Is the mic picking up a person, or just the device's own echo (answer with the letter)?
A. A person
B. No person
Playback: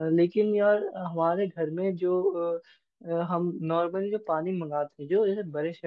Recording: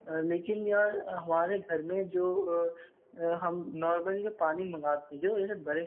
B